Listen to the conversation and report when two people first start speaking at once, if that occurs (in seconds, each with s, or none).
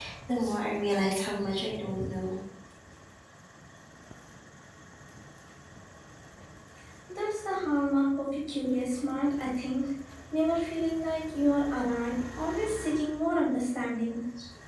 none